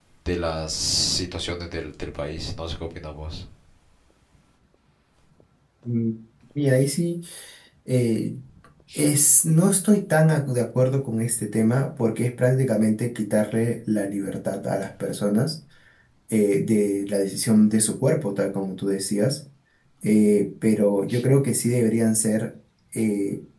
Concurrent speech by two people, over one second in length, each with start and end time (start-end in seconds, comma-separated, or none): none